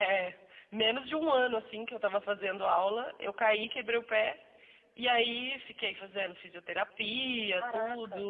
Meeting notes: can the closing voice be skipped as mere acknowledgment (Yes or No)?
Yes